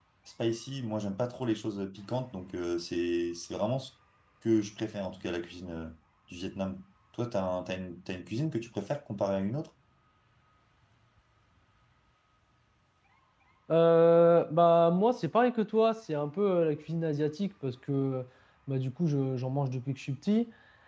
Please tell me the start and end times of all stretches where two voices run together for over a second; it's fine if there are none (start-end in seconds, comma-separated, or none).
none